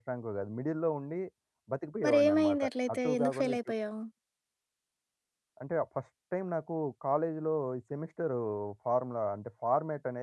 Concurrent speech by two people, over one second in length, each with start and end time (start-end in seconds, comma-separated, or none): 2.0-3.6